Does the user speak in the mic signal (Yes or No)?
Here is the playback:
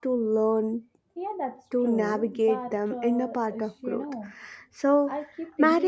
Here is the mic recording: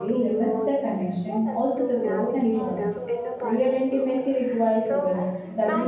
Yes